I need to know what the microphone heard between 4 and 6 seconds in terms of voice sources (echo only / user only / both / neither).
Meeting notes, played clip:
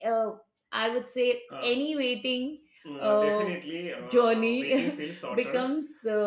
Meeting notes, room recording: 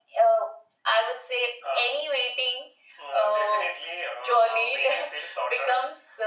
echo only